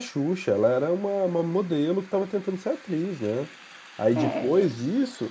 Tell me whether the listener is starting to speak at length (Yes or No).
No